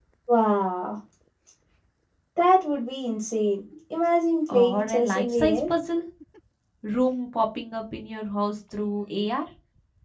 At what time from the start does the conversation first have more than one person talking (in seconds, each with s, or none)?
4.5 s